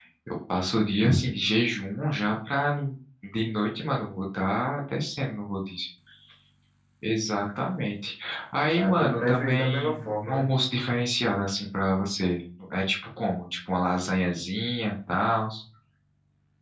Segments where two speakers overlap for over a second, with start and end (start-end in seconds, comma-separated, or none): 8.7-10.5